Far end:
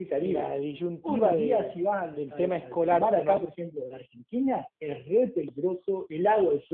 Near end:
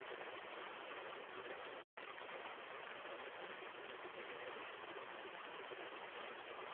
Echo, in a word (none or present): none